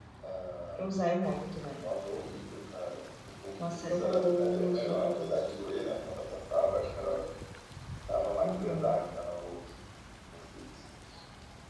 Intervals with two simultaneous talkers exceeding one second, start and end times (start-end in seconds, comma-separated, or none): 3.7-5.4